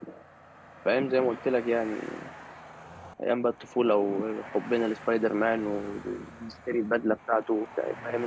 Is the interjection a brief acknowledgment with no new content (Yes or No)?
No